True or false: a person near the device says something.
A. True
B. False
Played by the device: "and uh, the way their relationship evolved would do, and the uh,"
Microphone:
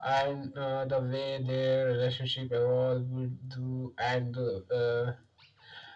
B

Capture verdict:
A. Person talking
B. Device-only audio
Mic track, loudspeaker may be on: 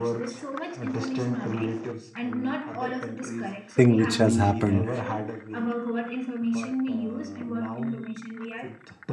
A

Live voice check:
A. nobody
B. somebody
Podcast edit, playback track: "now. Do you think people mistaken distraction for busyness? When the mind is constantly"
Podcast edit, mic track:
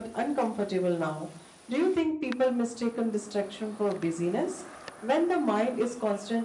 A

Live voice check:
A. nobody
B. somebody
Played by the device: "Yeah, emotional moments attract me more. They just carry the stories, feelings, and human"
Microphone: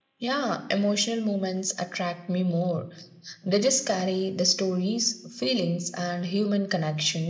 A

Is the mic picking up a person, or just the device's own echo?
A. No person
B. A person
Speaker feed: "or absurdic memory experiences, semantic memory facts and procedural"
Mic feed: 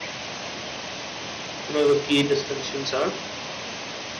B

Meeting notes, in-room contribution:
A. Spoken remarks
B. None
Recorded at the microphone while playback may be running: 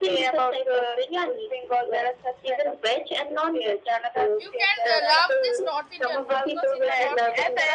A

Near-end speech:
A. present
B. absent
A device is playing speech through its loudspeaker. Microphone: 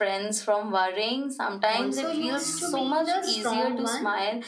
A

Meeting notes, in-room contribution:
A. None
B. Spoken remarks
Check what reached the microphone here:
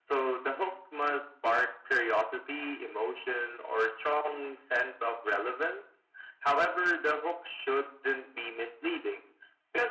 A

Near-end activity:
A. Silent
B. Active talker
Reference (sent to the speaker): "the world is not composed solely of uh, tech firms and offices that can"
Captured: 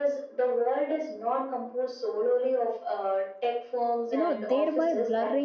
B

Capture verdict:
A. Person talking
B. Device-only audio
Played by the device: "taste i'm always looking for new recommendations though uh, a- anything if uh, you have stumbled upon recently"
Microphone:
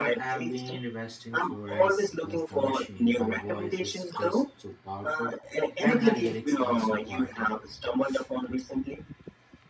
A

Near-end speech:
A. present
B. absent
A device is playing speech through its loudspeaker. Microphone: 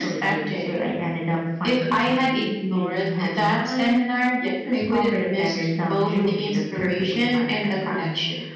B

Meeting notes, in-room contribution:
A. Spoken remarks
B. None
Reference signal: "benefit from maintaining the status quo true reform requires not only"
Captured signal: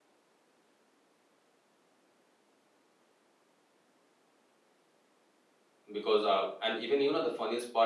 A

